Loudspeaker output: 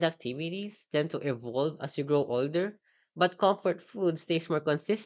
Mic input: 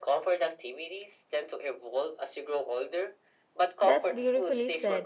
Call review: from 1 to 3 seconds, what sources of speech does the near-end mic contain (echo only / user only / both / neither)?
echo only